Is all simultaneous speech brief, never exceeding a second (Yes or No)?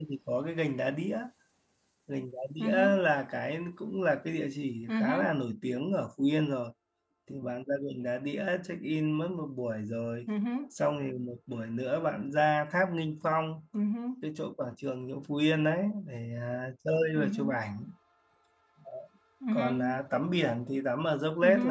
Yes